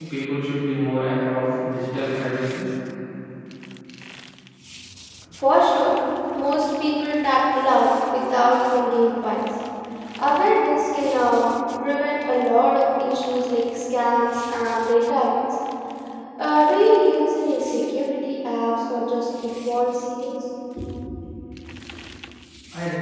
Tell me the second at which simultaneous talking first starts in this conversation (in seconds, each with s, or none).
none